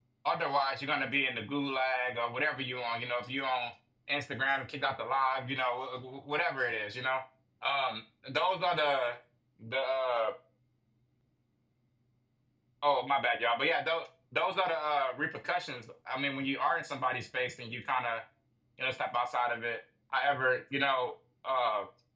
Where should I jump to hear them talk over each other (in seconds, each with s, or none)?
none